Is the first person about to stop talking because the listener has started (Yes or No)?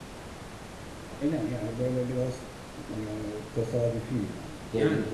Yes